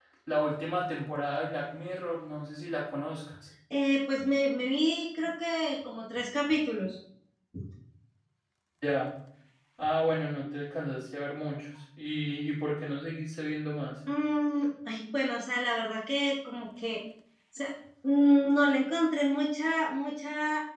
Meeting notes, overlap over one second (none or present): none